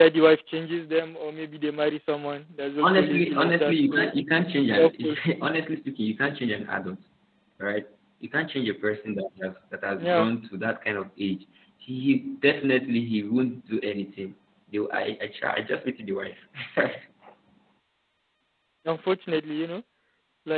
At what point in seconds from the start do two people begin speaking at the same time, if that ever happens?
2.8 s

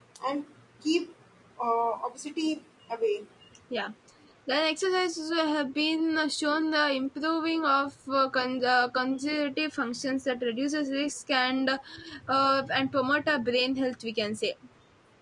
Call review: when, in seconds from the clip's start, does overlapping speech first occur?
none

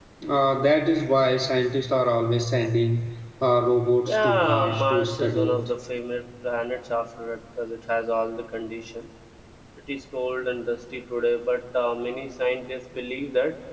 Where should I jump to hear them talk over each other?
4.0 s

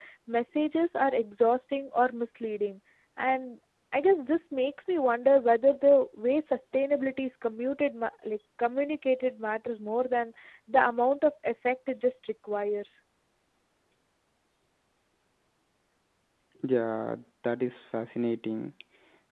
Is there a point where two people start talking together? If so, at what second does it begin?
none

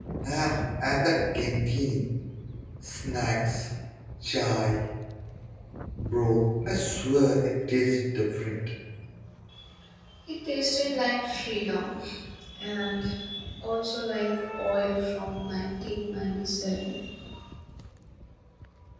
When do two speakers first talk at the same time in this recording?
none

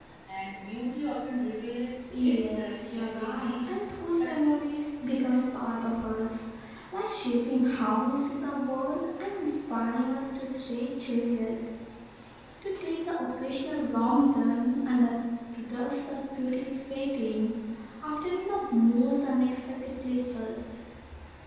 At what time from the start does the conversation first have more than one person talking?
2.1 s

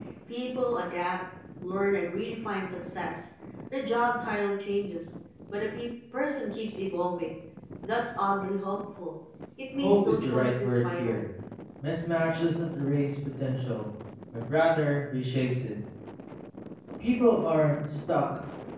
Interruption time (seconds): 9.7 s

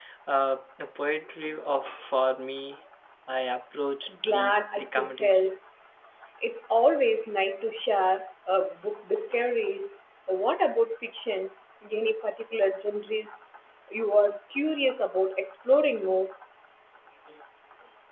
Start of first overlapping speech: 4.0 s

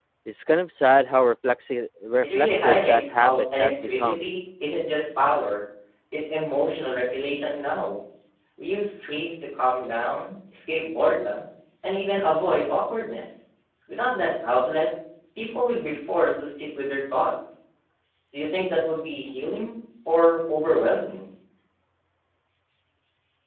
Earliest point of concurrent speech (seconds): 2.2 s

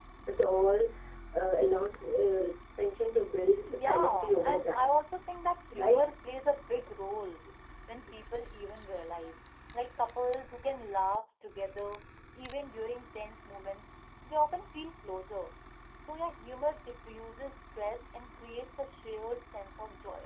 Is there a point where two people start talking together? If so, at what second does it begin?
3.7 s

